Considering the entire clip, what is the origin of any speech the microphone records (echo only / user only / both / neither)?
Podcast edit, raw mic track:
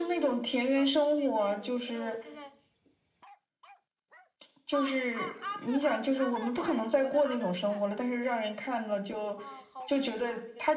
both